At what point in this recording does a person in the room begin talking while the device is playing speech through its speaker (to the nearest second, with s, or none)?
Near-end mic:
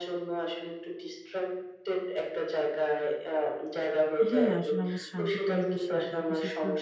4 s